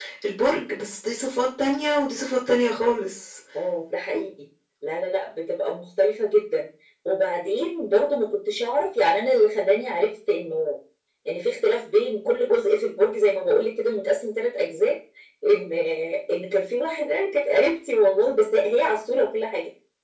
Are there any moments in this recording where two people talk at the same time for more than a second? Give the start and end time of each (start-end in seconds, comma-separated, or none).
none